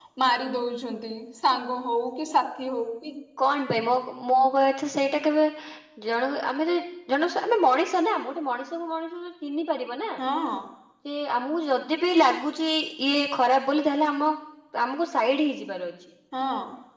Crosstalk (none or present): none